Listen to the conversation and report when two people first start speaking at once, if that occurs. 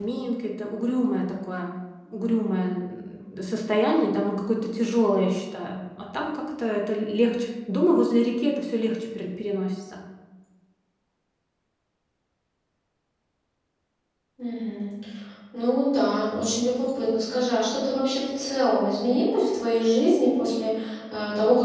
none

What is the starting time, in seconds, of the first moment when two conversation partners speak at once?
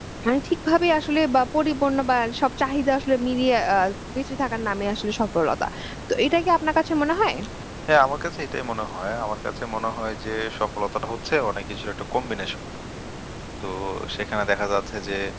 none

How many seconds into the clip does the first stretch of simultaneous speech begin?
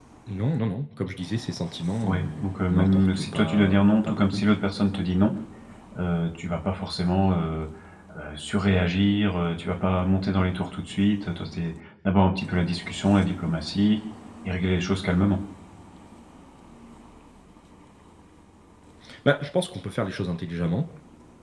2.0 s

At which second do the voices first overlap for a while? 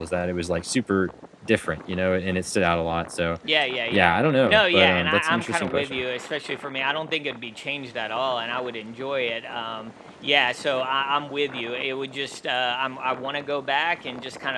3.9 s

